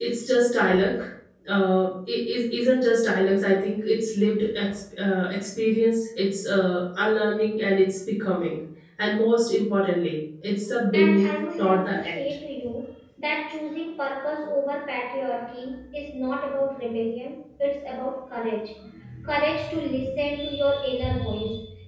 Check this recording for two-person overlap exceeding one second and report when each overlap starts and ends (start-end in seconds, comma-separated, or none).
10.9-12.2